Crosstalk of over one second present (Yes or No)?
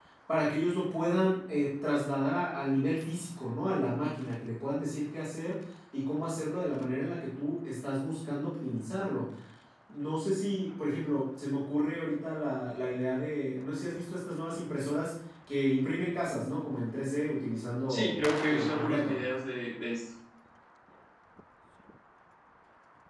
Yes